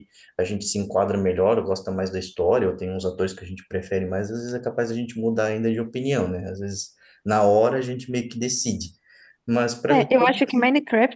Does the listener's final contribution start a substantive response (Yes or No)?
Yes